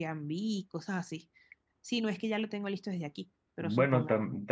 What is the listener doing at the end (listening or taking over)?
taking over